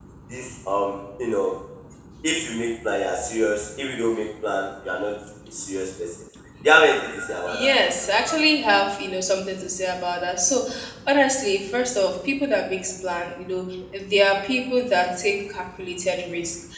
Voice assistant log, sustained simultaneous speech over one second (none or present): none